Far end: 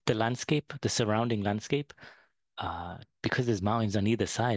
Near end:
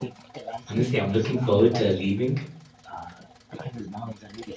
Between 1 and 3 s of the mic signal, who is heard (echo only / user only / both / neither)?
both